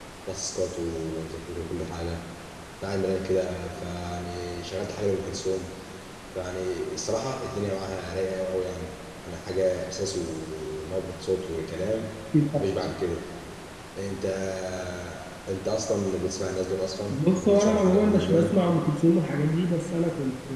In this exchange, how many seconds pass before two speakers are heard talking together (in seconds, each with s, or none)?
17.1 s